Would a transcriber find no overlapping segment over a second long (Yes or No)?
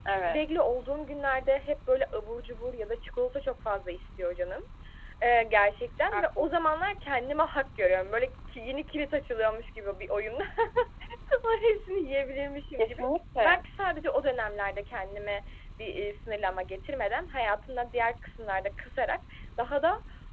Yes